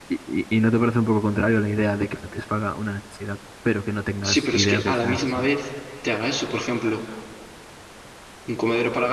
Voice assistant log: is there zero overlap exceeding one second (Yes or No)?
No